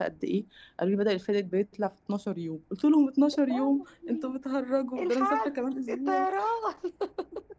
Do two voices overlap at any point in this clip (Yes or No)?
Yes